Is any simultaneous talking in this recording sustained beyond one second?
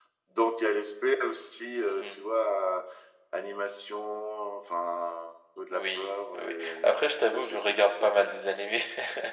Yes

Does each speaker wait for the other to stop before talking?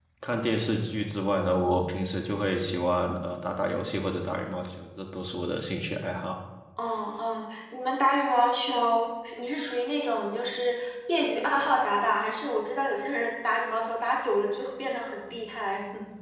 Yes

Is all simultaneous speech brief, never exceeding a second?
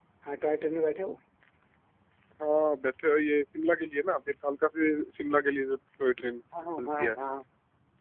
Yes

